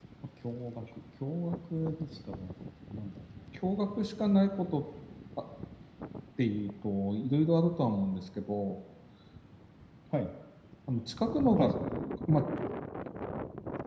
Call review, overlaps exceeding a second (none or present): none